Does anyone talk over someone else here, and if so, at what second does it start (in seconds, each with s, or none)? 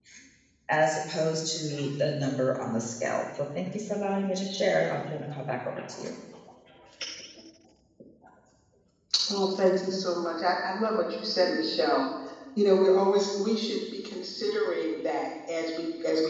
none